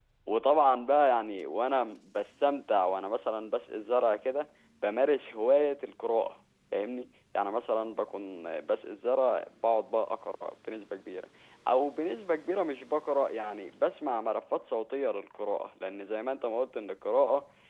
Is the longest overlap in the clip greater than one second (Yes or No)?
No